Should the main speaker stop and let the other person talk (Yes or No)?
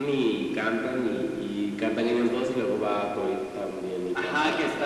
Yes